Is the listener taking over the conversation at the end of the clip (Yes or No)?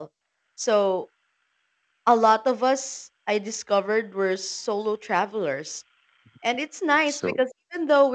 No